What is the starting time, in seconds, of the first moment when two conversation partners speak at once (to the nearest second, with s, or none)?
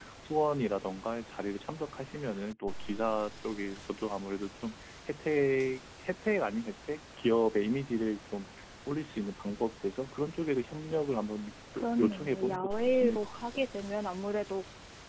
12 s